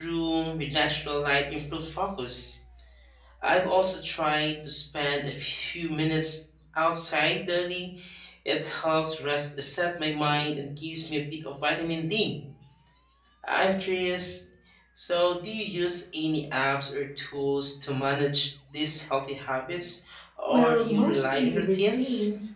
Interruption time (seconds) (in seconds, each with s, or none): 20.5 s